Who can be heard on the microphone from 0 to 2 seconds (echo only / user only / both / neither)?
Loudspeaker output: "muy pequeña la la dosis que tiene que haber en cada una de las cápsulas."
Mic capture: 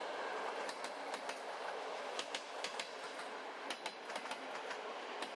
neither